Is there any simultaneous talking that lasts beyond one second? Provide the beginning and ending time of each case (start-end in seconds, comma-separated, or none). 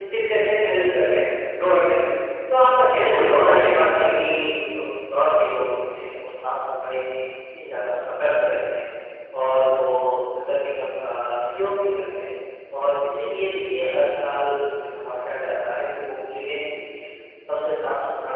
2.9-4.3